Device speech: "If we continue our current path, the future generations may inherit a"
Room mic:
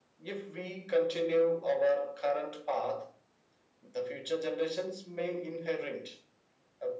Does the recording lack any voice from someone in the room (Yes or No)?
Yes